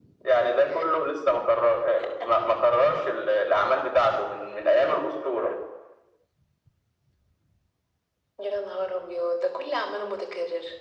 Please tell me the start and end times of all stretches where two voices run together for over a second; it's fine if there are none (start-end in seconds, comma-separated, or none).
none